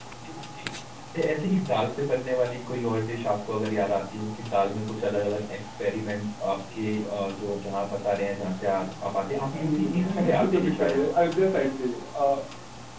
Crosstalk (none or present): present